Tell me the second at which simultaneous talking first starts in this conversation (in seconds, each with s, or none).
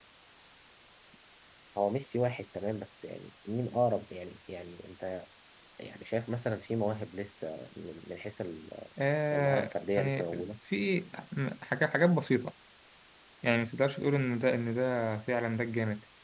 9.3 s